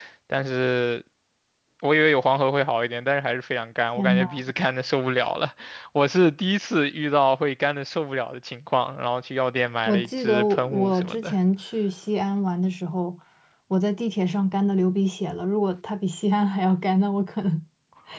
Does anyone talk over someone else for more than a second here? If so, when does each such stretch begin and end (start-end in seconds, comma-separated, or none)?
9.9-11.3